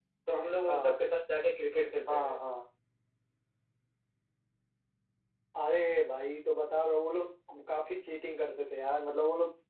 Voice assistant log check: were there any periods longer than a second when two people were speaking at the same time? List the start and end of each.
none

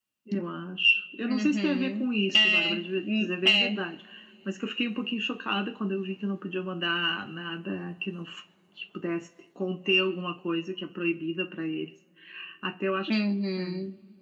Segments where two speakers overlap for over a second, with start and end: 1.2-3.7

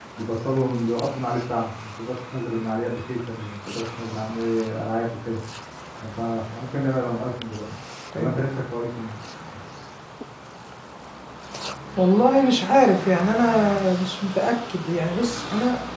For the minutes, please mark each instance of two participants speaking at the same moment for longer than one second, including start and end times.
none

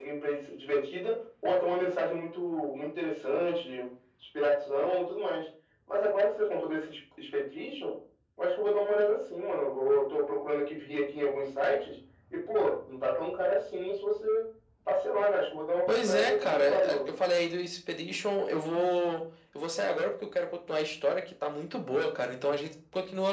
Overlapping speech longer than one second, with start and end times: 15.9-17.1

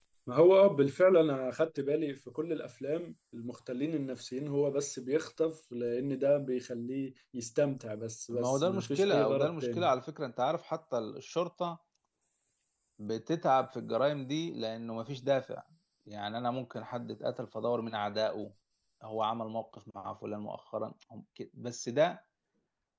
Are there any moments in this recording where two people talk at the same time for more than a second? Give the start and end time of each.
8.3-9.9

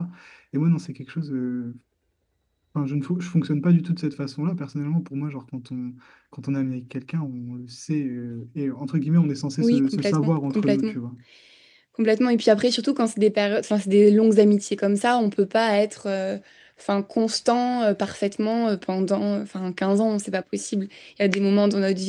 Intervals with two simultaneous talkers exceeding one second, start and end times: 9.6-10.9

